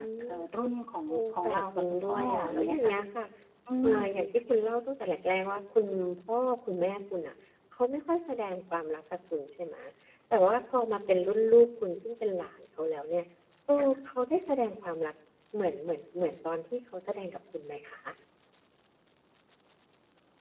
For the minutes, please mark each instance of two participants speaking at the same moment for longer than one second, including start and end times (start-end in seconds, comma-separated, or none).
1.1-3.0